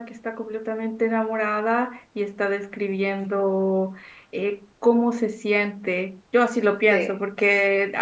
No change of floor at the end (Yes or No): Yes